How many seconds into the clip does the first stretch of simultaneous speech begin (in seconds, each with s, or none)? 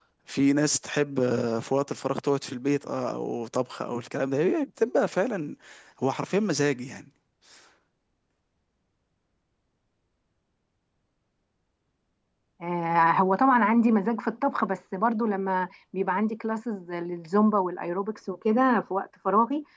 none